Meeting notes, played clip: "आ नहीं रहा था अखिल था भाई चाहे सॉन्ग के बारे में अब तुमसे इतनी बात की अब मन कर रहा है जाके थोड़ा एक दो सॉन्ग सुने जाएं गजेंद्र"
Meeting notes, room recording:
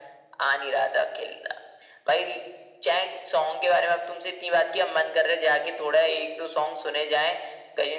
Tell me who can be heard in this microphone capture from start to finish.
echo only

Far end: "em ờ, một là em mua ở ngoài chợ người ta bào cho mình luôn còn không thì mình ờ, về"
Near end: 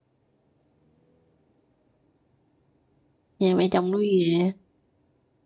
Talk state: user only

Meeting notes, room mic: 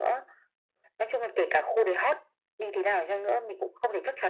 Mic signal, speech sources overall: echo only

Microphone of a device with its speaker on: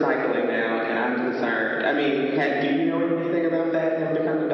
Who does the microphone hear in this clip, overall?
echo only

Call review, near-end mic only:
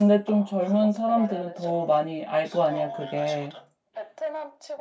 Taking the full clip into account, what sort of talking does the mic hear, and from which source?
both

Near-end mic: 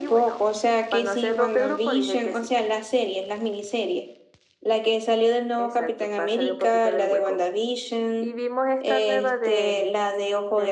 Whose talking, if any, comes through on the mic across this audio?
echo only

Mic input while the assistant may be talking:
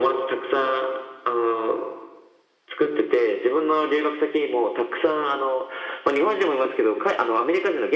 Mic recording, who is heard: echo only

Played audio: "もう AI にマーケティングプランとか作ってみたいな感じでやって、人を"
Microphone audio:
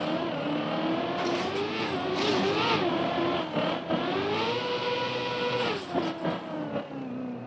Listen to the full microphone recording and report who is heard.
neither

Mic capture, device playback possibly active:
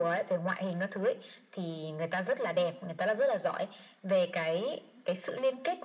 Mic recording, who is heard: echo only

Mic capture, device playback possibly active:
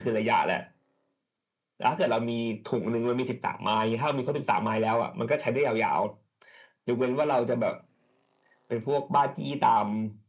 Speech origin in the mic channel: echo only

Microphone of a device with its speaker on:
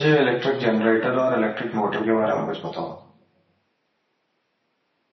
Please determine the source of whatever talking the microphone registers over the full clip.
user only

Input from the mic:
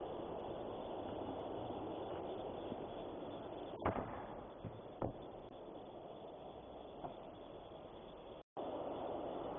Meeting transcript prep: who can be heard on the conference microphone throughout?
neither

